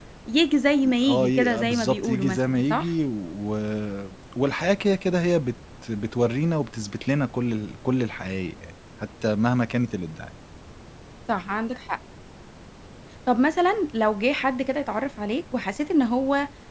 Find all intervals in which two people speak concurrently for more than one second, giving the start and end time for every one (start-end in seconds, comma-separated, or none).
1.1-2.9